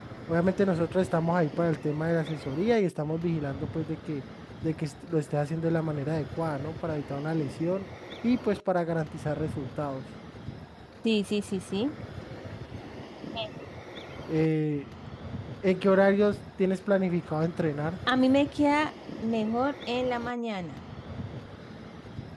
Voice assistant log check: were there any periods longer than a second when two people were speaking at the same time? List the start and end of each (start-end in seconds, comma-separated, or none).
none